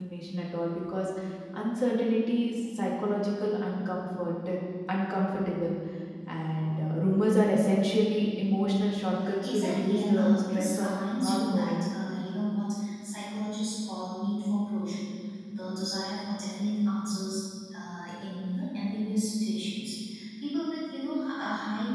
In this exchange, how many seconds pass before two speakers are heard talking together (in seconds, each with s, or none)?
9.4 s